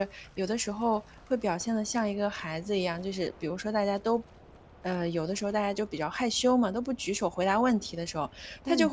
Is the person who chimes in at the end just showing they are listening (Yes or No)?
Yes